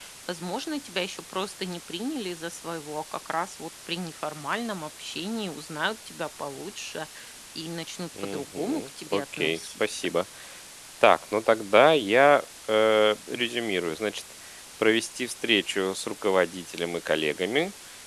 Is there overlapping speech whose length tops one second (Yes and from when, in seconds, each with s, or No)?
Yes, from 8.2 s